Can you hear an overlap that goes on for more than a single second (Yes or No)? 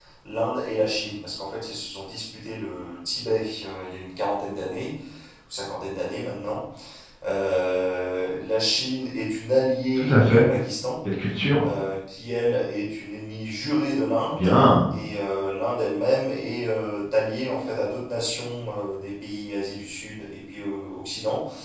No